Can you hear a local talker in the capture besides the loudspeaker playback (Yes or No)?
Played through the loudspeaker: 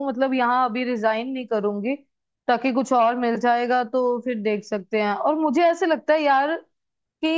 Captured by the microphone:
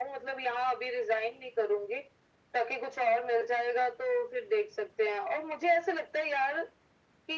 No